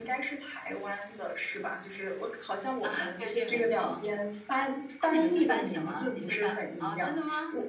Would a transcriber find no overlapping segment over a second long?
No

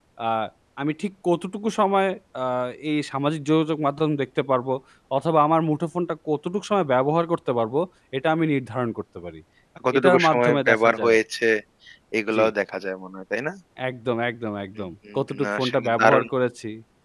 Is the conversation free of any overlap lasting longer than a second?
No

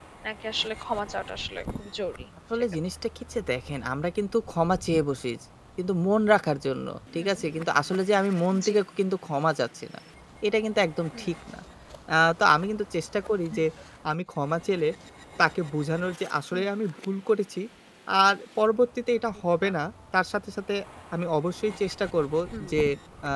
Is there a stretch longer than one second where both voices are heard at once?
No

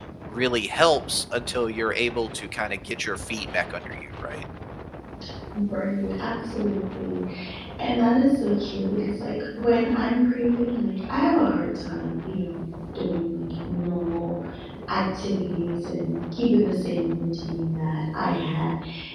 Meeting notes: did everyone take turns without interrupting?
Yes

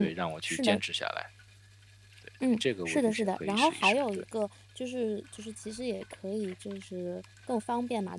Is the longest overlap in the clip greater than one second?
Yes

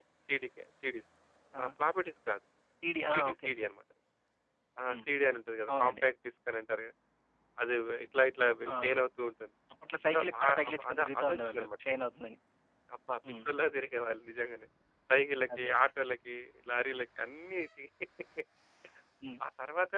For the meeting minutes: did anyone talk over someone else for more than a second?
Yes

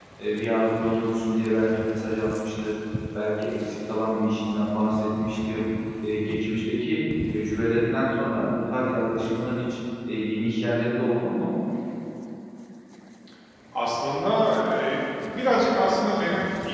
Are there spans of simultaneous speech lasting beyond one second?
No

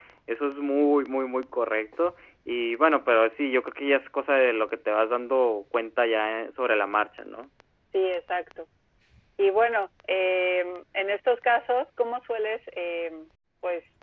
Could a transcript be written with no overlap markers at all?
Yes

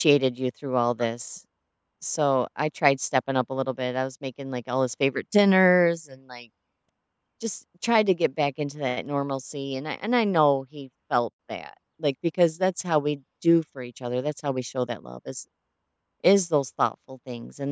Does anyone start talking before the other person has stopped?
No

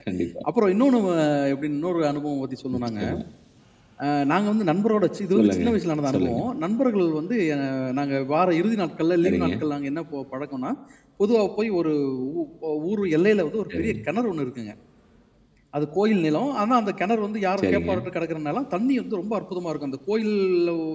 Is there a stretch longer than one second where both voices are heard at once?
No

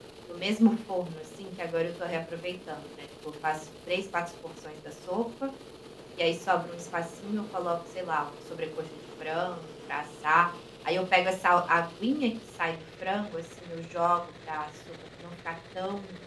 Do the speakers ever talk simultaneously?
No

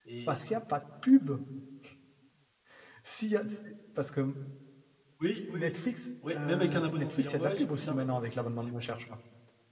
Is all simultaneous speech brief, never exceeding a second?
No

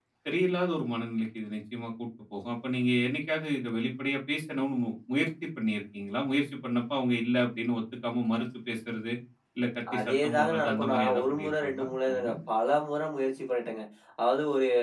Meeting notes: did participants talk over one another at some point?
Yes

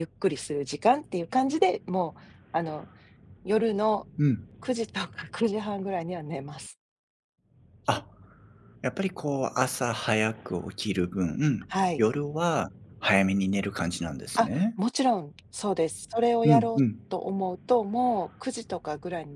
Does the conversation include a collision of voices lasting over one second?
No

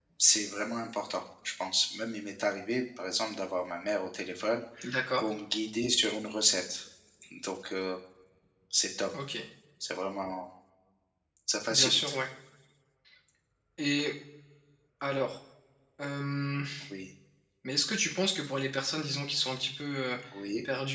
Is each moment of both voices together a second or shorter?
Yes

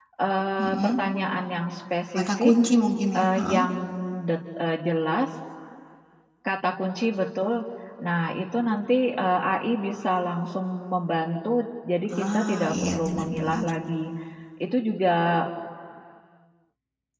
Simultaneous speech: Yes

